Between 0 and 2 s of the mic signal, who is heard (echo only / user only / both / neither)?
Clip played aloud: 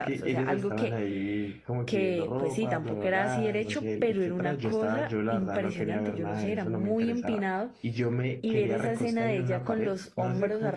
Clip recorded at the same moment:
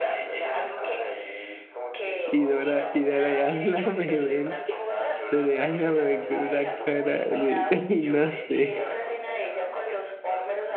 echo only